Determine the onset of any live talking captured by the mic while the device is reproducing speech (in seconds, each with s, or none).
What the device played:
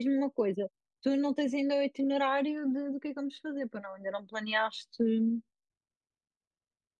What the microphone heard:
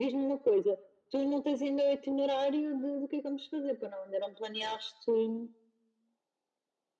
none